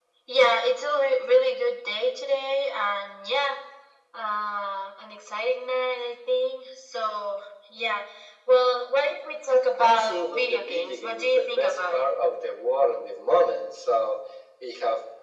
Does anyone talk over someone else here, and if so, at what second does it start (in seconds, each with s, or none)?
9.8 s